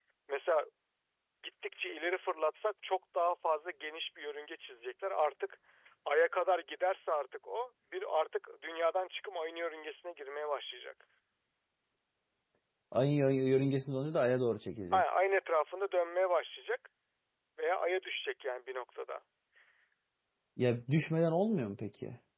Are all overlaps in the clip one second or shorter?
Yes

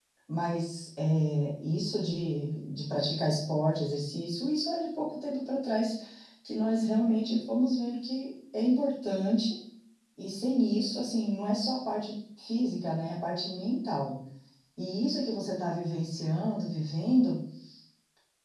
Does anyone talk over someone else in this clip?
No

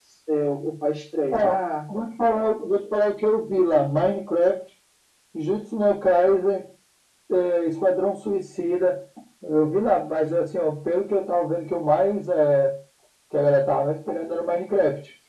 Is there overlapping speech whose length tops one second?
No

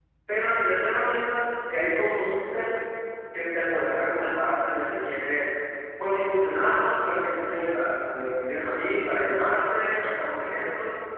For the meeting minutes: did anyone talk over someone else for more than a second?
No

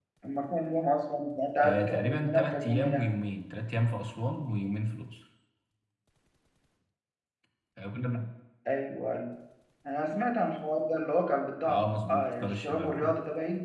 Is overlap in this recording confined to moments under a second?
No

